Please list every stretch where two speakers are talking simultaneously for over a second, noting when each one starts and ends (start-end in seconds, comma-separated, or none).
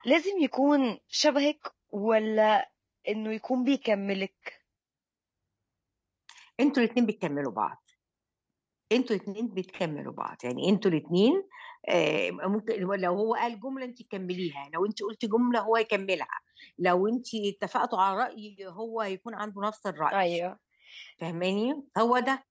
none